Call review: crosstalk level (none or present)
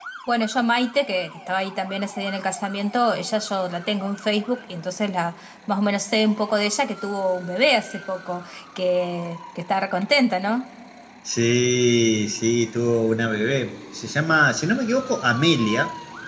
none